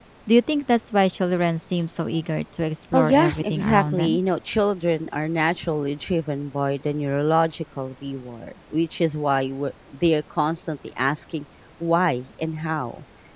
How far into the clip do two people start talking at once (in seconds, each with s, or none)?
2.9 s